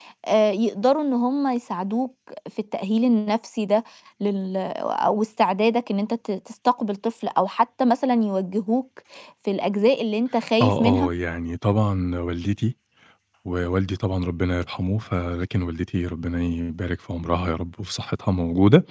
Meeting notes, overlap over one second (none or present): none